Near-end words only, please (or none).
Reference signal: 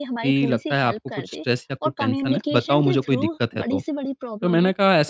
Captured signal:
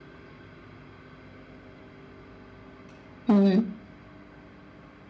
हुँ।